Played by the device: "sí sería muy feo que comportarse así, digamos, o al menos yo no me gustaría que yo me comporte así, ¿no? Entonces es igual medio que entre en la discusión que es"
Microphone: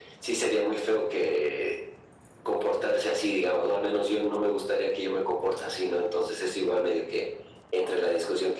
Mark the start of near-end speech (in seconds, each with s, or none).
none